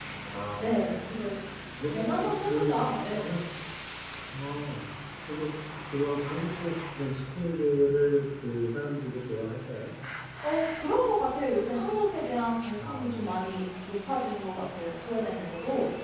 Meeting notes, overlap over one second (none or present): present